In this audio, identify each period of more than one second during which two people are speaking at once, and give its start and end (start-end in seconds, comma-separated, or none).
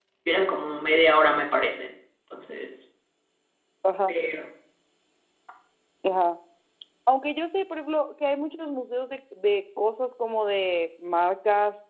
none